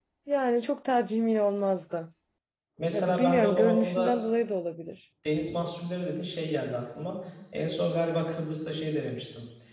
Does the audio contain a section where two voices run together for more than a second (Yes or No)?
Yes